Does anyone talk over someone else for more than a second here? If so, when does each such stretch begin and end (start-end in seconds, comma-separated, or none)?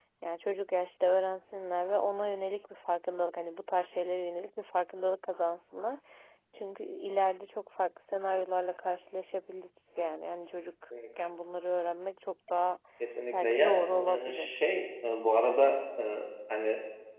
13.3-14.5